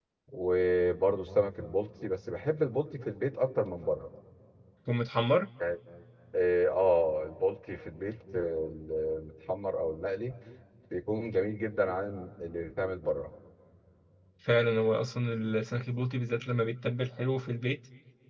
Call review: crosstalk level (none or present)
none